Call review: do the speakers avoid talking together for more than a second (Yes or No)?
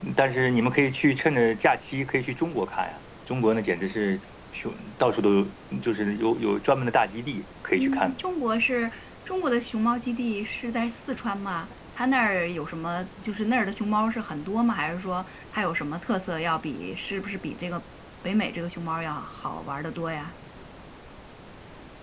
Yes